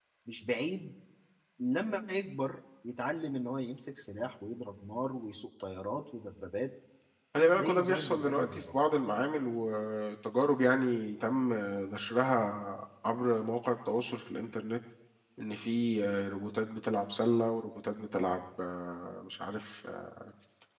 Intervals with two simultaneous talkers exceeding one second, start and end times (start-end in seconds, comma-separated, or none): 7.5-8.7